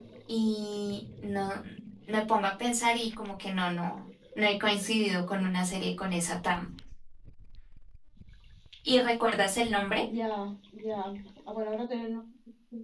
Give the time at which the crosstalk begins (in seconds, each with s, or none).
none